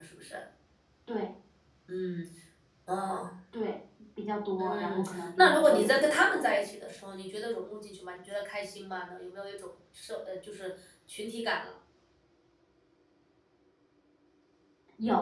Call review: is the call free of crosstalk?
No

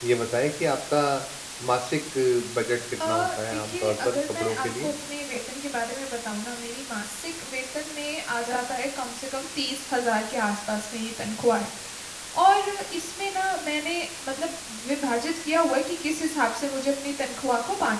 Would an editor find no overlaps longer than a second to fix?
No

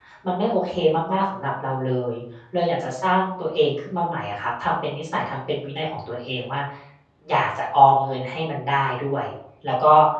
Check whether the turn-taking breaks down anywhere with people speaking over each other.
No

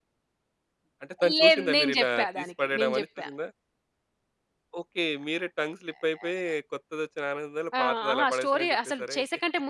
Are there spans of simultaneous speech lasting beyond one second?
Yes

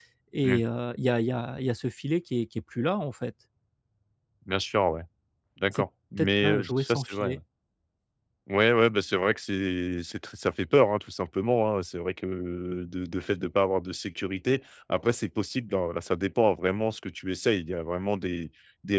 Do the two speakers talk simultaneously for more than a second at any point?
Yes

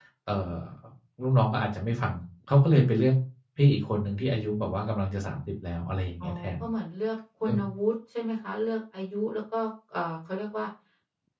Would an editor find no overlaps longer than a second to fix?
Yes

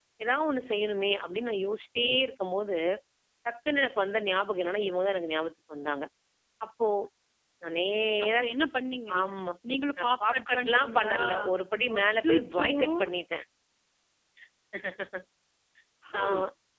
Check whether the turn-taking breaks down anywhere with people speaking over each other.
Yes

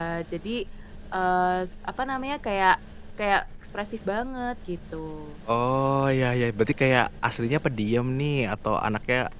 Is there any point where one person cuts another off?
No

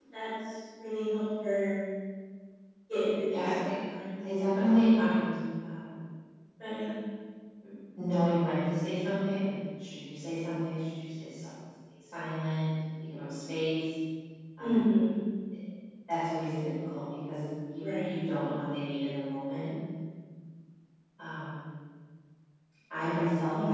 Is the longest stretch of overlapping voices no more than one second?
Yes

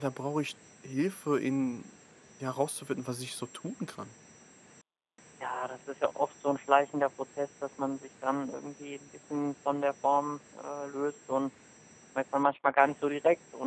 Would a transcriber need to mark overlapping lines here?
No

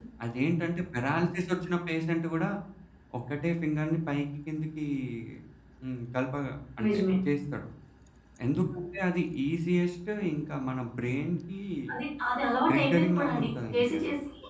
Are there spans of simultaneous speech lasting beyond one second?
Yes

